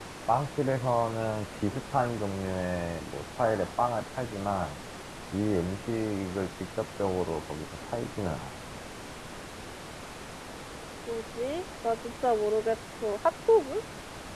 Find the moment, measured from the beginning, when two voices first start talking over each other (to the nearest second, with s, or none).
none